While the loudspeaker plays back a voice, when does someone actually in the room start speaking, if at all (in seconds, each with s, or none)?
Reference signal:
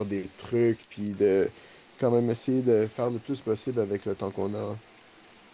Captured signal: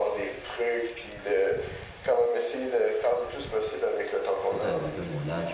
4.4 s